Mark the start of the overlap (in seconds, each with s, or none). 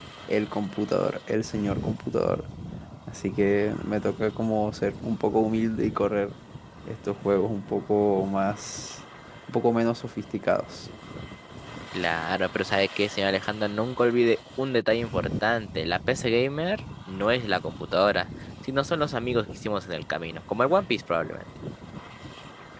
none